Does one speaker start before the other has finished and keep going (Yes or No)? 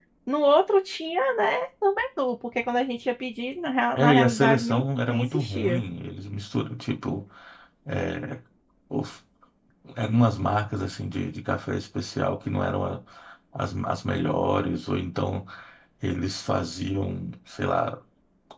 Yes